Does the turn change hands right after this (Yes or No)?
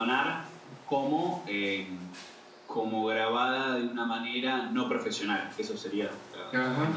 Yes